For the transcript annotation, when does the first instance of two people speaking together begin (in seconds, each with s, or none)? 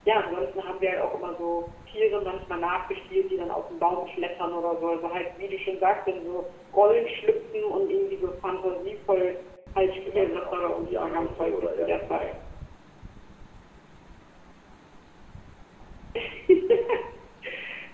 10.0 s